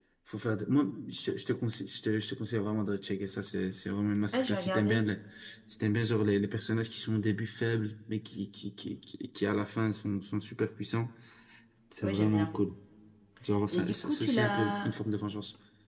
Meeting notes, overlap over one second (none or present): present